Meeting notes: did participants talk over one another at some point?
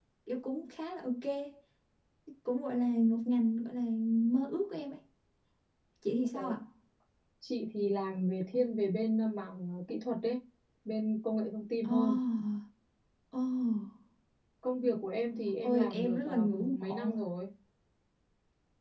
Yes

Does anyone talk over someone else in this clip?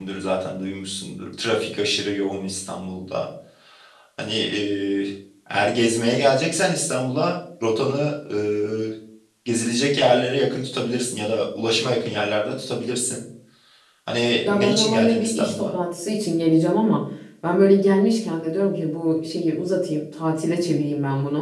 Yes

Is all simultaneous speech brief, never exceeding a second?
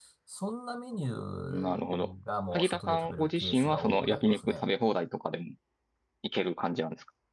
No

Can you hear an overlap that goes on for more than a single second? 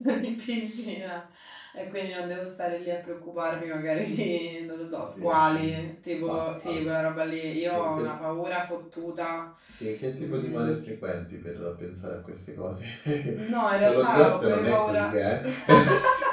Yes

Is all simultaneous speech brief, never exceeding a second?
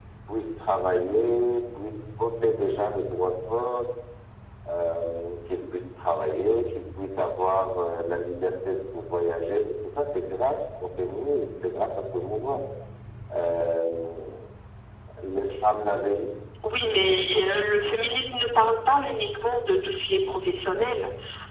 Yes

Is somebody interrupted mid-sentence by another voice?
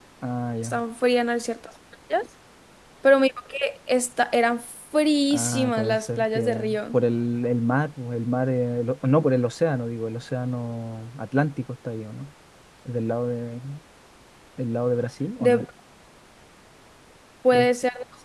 Yes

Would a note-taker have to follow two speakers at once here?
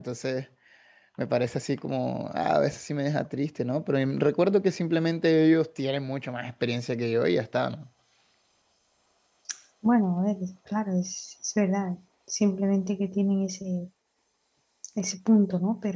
No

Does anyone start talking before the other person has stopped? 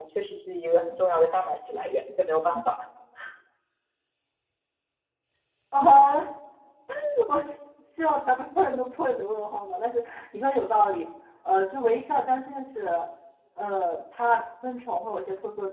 No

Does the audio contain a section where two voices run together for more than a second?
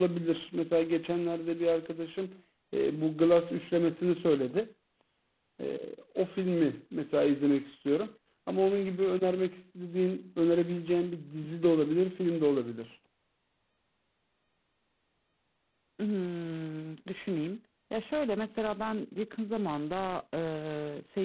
No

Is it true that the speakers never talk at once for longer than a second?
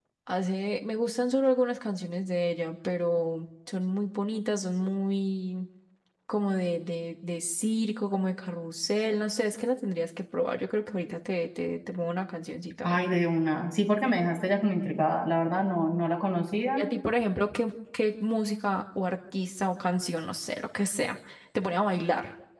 Yes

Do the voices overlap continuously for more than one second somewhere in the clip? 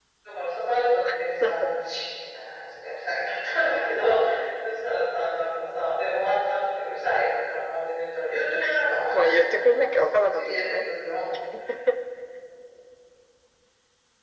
Yes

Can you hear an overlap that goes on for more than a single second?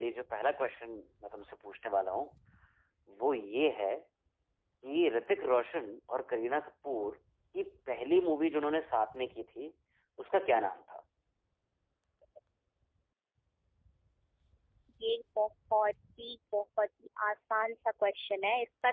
No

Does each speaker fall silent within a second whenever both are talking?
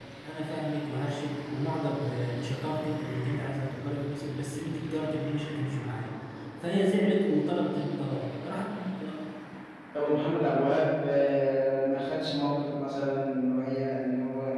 Yes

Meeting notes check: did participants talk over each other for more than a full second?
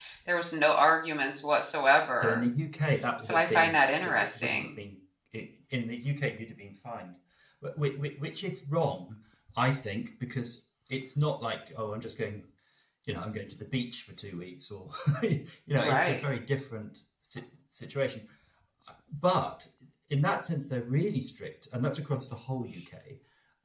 Yes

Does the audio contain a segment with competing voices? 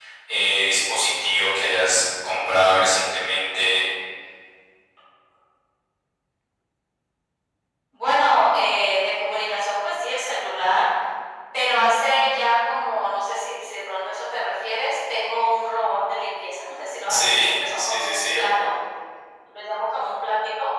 Yes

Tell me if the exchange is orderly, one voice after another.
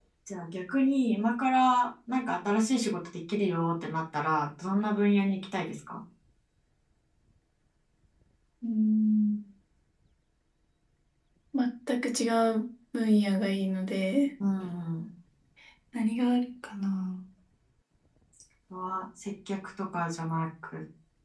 Yes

